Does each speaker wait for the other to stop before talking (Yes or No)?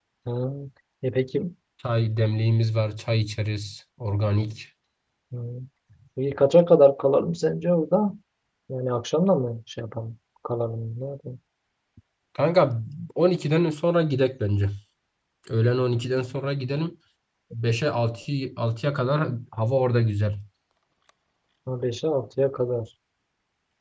Yes